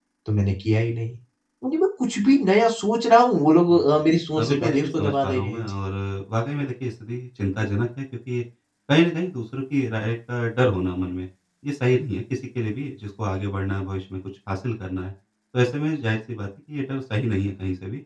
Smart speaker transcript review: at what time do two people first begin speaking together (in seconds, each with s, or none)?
4.4 s